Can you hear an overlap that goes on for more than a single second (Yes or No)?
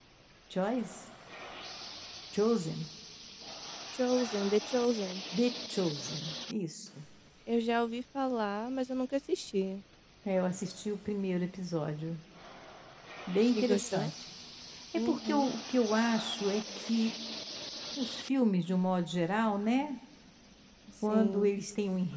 No